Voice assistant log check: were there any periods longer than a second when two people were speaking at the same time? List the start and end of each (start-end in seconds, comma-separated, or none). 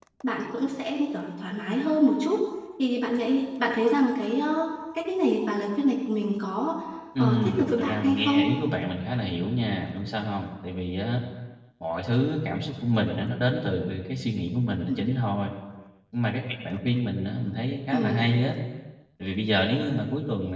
7.2-8.4